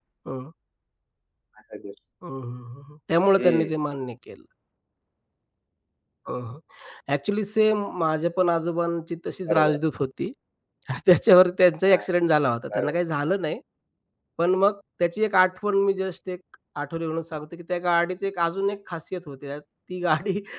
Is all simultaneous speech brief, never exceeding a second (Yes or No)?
Yes